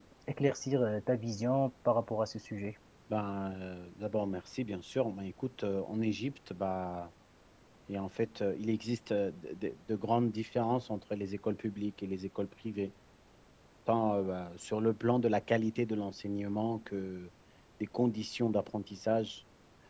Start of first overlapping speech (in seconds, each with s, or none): none